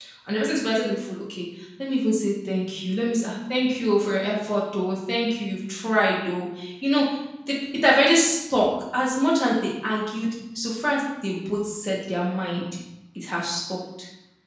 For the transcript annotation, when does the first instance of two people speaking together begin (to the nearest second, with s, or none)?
none